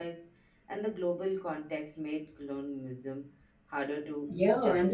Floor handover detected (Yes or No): Yes